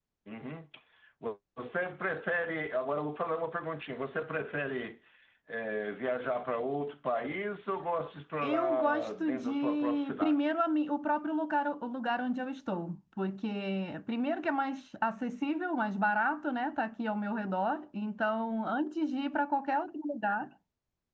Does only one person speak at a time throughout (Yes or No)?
No